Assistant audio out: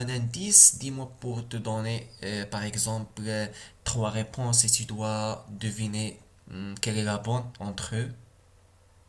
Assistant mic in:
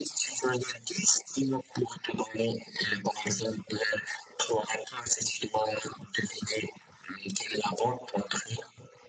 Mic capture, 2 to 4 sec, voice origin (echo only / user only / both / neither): echo only